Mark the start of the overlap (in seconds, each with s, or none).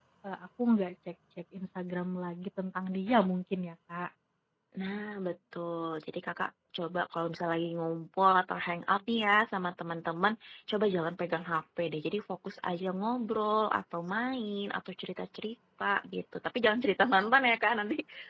none